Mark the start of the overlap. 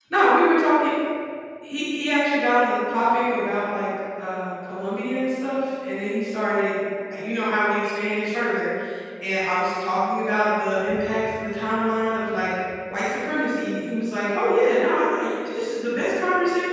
none

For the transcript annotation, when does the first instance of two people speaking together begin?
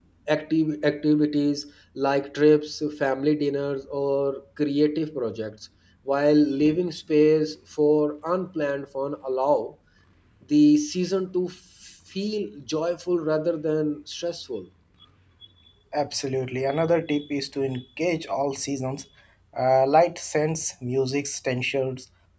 none

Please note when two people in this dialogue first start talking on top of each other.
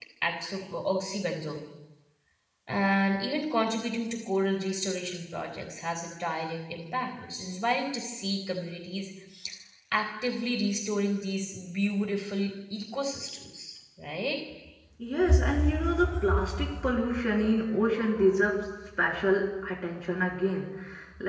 none

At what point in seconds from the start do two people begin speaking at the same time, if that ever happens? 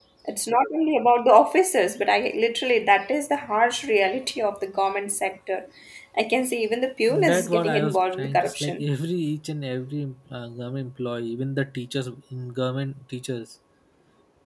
7.1 s

